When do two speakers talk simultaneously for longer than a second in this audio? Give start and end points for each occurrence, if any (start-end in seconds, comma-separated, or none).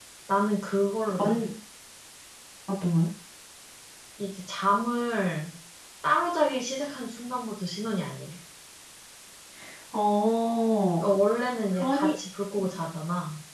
none